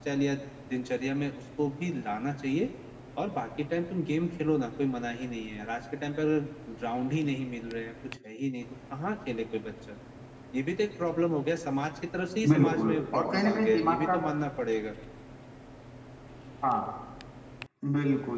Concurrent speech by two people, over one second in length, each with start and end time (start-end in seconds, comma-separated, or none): 12.5-14.2